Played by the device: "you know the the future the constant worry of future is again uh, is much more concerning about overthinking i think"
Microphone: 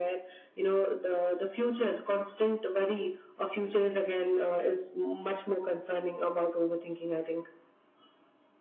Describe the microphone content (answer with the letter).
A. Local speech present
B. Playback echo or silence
B